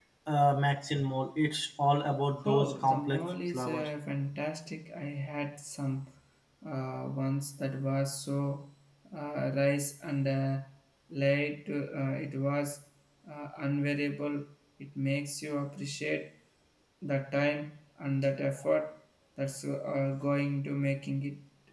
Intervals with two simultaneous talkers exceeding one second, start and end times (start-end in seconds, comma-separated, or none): 2.4-3.9